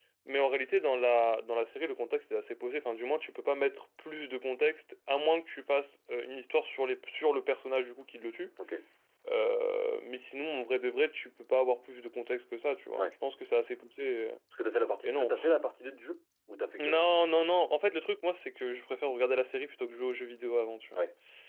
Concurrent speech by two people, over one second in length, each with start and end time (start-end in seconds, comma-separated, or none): none